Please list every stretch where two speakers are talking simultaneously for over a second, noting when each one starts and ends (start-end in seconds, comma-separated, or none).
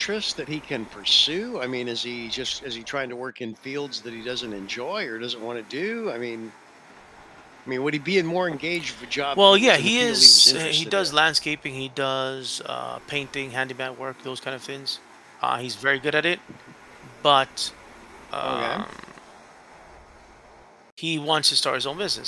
9.4-11.1